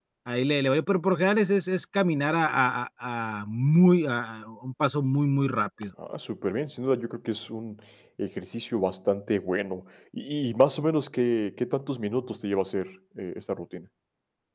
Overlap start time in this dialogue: none

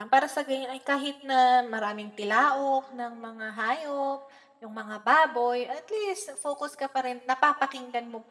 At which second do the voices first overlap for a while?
none

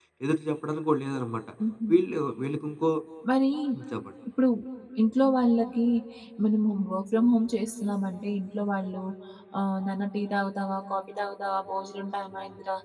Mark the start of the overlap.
none

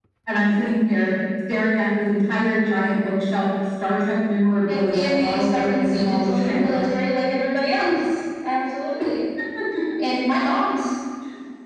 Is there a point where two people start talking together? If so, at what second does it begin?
4.7 s

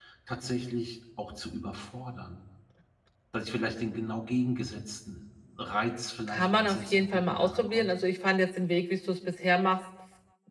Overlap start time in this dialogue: 6.3 s

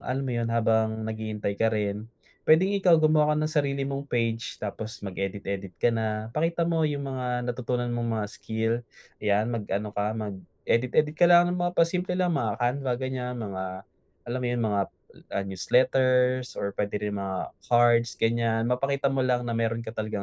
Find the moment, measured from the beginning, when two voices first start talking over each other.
none

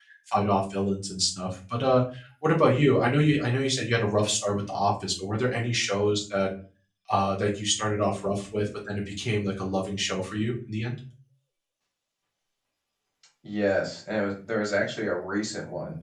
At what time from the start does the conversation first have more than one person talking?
none

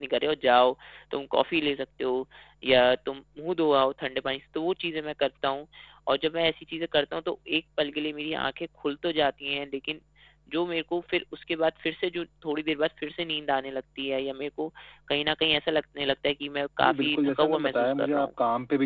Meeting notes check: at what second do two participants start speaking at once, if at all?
16.8 s

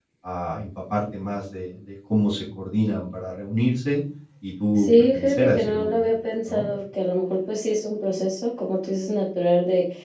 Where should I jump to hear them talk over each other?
4.8 s

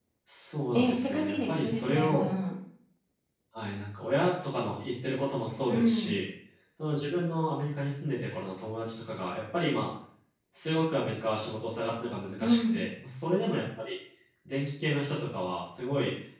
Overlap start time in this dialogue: 0.7 s

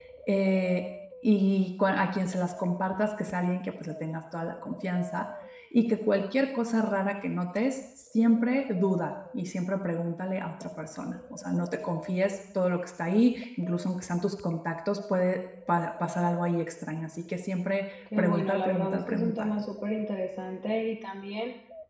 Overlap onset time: 18.1 s

